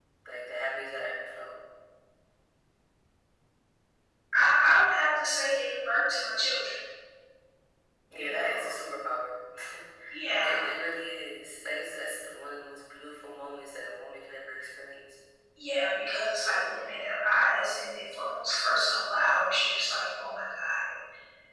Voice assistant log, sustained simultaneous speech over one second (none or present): none